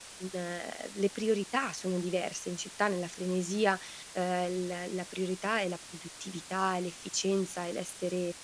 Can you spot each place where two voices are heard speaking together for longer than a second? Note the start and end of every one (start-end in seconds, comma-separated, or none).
none